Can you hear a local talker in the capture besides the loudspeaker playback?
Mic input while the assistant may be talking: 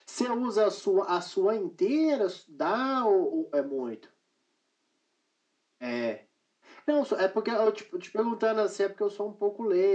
No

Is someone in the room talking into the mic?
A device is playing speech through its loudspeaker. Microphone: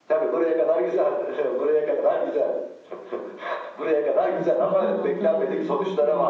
Yes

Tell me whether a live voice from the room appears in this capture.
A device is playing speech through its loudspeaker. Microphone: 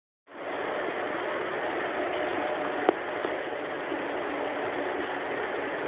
No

